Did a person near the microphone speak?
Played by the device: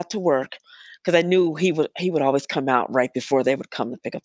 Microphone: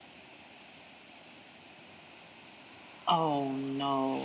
Yes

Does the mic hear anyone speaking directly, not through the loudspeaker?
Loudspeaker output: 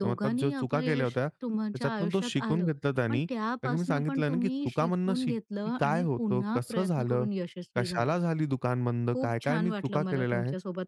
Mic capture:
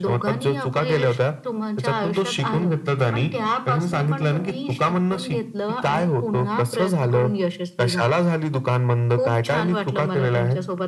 No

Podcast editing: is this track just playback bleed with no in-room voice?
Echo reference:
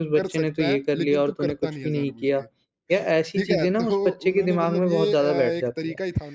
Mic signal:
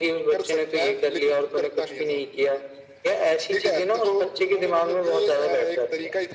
Yes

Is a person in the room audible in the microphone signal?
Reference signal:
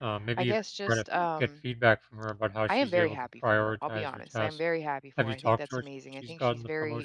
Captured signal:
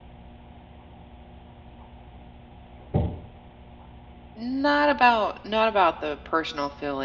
Yes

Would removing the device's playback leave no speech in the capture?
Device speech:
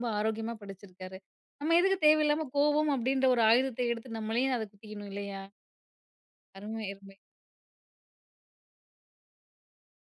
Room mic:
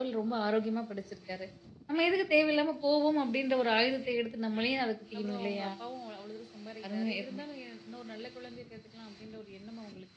No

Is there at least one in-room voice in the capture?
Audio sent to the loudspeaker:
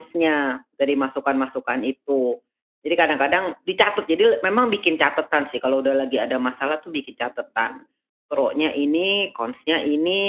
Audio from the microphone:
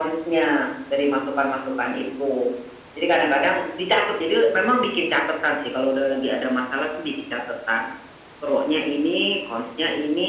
No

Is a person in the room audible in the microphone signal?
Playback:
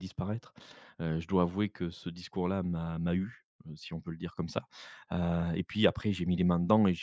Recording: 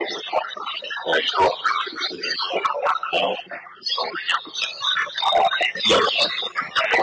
No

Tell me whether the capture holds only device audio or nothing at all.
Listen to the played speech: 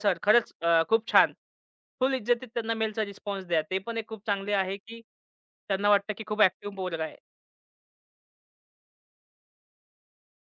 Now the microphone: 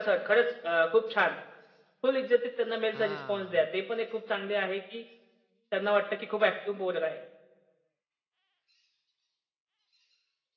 No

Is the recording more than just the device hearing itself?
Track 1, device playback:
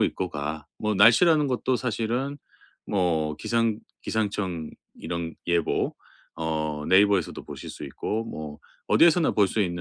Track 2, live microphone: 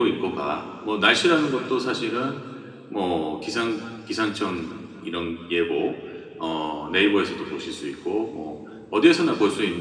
No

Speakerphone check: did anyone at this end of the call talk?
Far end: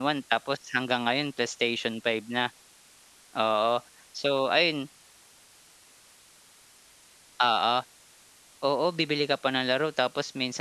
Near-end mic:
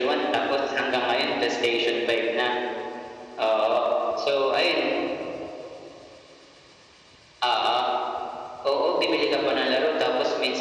No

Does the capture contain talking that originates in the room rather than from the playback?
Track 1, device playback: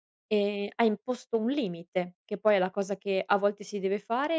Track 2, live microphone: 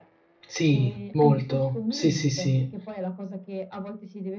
Yes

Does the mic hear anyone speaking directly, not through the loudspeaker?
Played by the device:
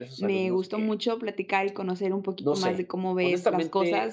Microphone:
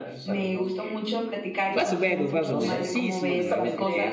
Yes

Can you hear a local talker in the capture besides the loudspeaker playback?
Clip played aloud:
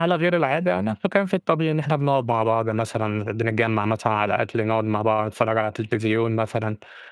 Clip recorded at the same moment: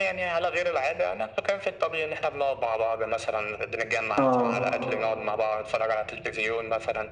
Yes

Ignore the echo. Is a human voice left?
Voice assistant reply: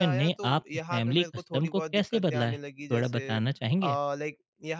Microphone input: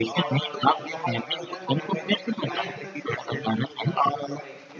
Yes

